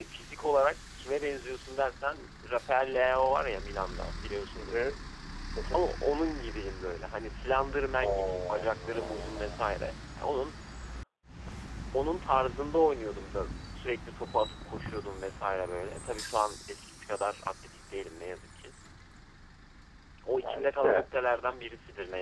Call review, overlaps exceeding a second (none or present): present